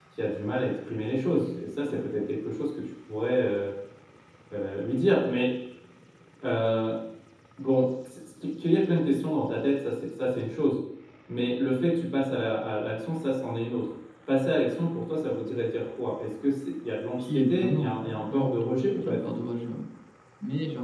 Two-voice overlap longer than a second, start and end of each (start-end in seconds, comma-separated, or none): 17.2-19.4